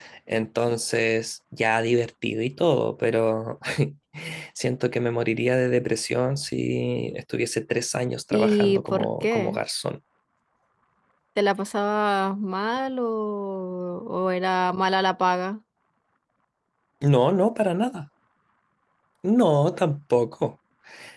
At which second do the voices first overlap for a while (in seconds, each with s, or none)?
8.3 s